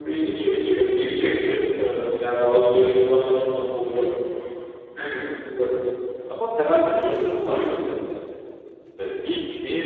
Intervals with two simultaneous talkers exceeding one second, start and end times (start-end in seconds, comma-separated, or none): none